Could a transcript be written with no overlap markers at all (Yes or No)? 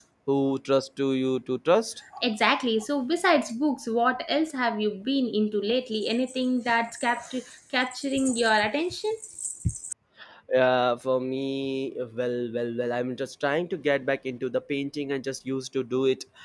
Yes